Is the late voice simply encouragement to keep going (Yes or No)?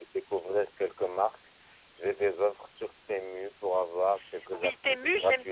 No